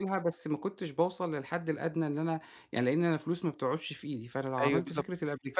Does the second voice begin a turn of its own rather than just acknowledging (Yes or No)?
Yes